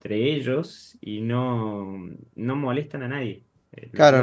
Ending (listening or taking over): taking over